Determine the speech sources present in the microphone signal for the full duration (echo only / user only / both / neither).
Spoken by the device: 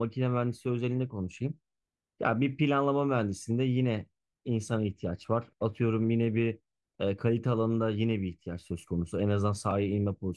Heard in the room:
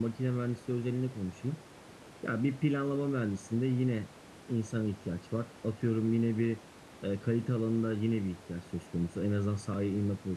echo only